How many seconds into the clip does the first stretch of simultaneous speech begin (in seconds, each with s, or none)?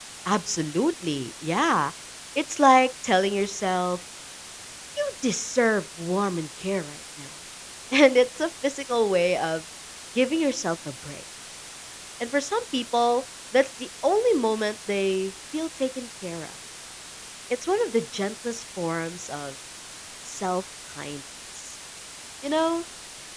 none